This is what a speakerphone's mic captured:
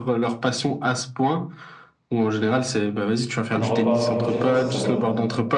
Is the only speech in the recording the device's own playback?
No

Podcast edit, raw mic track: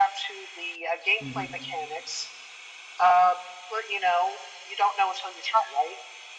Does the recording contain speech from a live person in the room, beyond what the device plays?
Yes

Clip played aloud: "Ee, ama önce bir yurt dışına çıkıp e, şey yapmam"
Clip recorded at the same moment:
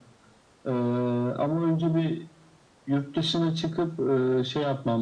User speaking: No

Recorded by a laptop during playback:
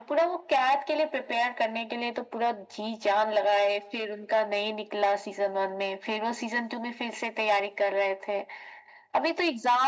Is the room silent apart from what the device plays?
Yes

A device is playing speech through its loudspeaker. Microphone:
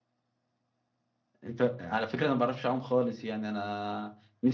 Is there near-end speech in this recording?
Yes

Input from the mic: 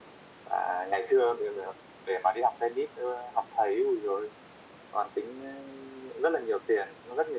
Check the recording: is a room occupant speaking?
No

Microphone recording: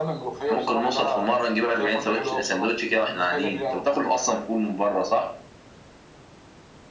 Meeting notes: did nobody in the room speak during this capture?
Yes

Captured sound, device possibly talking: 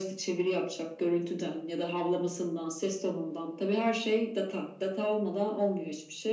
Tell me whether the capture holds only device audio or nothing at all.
Yes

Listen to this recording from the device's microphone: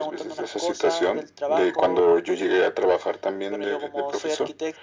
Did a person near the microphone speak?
No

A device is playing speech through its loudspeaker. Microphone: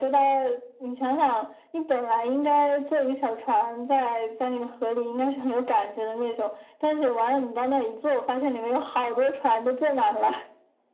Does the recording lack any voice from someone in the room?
Yes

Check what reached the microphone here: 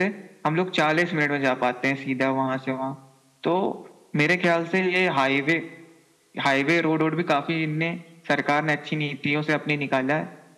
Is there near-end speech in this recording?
No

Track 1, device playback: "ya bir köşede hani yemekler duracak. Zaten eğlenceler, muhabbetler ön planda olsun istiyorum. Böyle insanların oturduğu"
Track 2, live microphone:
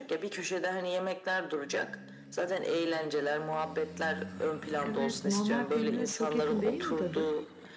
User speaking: Yes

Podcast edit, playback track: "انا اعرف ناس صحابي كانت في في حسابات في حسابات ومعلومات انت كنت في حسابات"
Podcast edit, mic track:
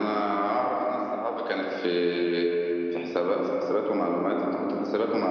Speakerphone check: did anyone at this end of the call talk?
No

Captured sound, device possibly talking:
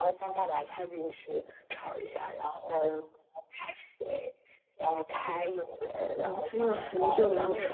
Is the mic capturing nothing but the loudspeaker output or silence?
No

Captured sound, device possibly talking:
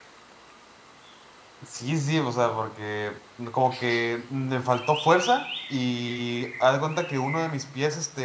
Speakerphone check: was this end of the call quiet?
No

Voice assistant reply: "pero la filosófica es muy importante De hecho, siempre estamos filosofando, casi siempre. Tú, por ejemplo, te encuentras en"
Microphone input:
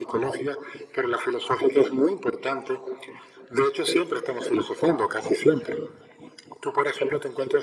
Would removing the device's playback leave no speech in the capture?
Yes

